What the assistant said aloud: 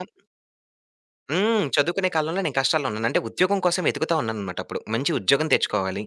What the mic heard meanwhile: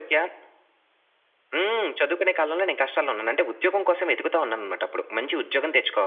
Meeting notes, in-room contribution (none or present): none